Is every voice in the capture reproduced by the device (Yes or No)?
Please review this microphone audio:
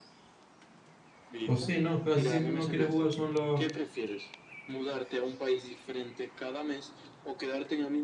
No